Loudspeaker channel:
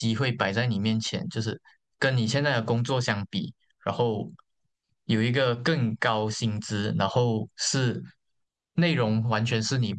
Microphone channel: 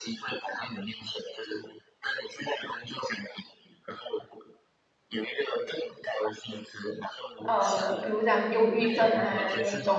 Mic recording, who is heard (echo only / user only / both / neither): both